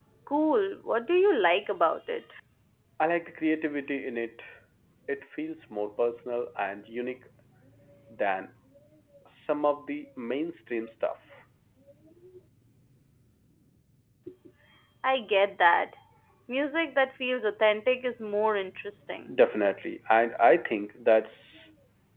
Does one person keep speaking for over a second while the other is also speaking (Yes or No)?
No